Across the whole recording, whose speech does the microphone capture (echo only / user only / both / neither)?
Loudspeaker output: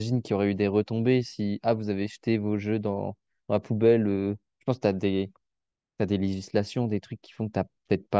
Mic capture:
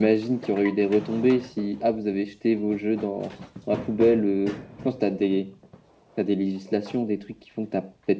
echo only